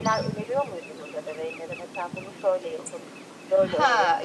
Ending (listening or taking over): taking over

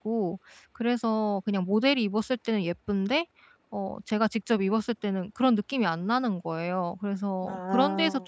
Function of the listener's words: listening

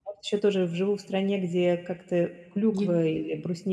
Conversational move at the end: listening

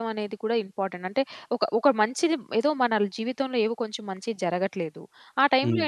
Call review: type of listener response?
listening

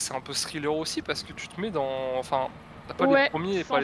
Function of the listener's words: taking over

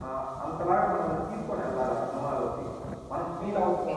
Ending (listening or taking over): taking over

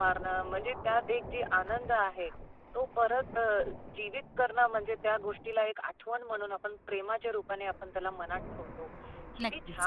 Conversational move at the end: listening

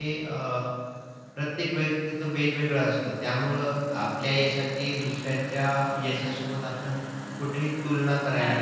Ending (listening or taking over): taking over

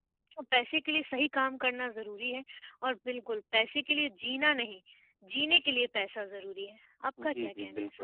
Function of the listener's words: taking over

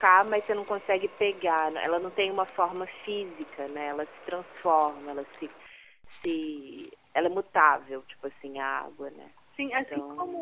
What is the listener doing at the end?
taking over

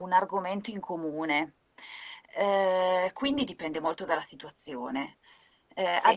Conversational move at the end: listening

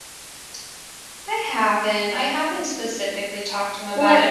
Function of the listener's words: listening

